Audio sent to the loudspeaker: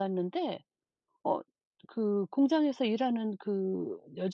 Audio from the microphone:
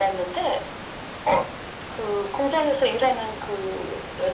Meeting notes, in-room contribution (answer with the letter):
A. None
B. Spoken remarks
A